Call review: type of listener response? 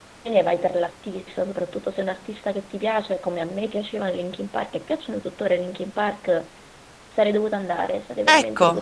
taking over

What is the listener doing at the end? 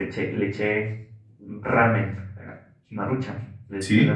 listening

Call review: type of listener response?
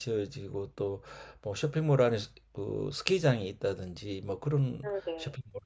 listening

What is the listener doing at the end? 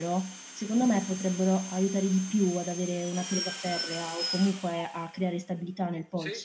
taking over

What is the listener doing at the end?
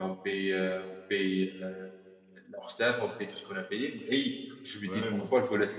listening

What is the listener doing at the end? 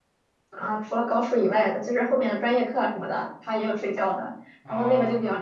listening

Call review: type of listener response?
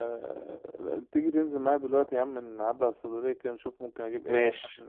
taking over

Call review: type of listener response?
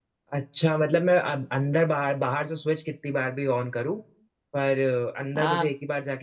listening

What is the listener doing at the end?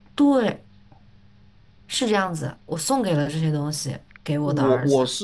taking over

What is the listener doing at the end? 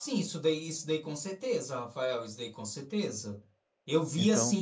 listening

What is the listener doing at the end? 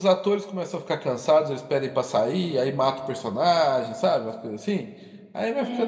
taking over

